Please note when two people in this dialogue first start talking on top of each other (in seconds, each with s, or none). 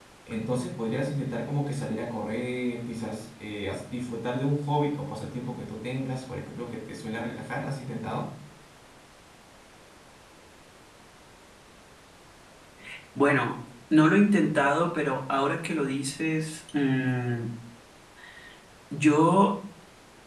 none